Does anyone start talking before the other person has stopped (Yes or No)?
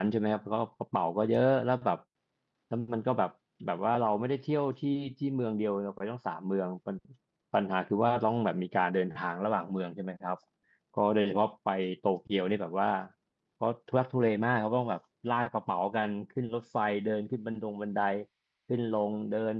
No